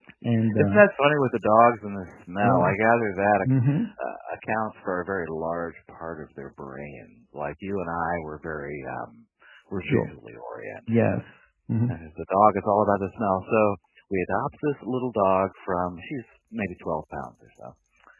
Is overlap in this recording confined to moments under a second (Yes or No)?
Yes